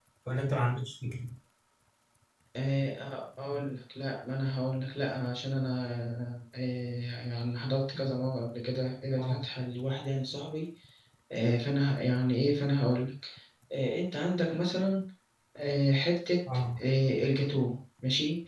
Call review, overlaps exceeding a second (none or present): none